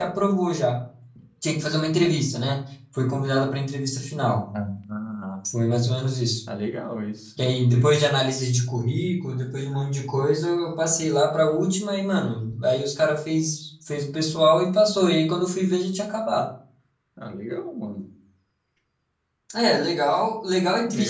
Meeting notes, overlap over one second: none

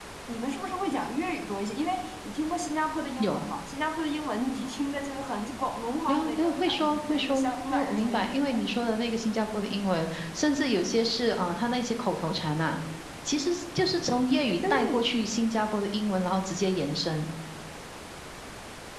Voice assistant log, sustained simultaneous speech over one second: present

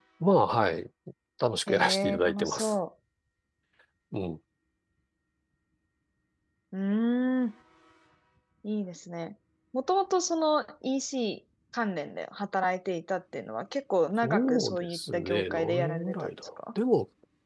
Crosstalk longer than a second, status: present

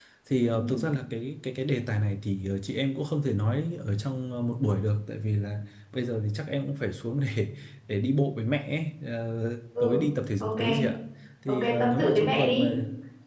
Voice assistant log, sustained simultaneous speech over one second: present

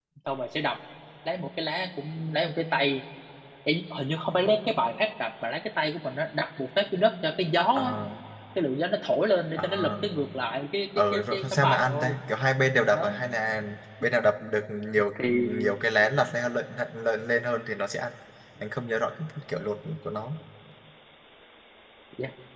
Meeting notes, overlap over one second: present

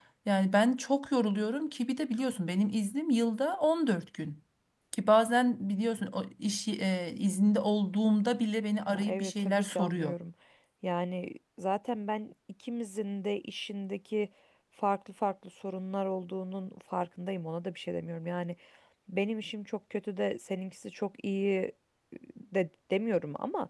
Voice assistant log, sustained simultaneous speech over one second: present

